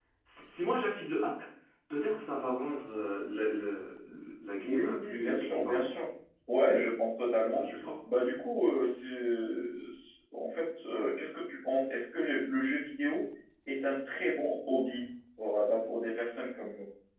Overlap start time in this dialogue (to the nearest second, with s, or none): 5 s